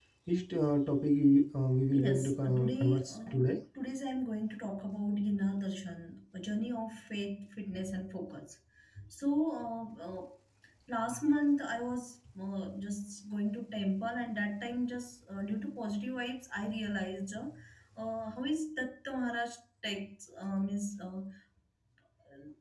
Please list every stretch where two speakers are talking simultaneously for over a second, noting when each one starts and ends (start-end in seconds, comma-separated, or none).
1.9-3.4